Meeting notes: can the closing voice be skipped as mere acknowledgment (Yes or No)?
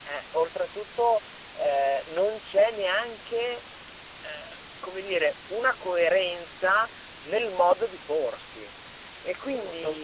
Yes